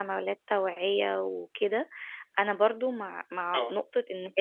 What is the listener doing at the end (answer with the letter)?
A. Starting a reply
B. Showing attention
B